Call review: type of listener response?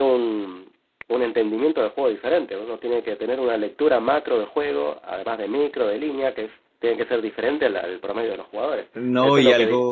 taking over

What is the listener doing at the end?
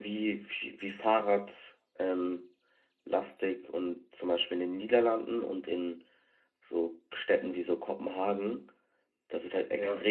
listening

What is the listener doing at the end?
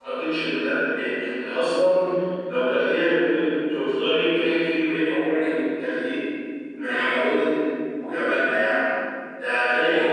taking over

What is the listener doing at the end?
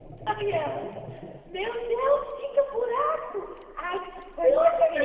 taking over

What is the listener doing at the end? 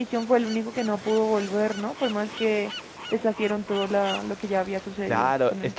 taking over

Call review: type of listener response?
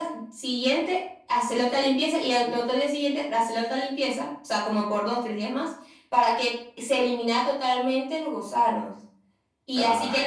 listening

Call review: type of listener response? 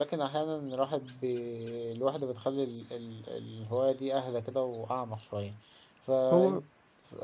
listening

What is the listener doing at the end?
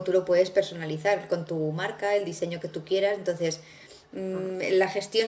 listening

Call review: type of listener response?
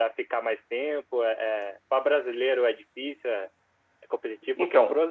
listening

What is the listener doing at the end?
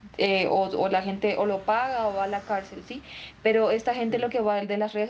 listening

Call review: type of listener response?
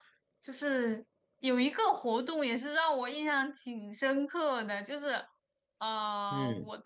listening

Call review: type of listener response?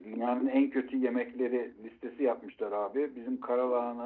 listening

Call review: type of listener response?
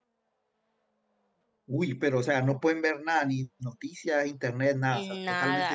taking over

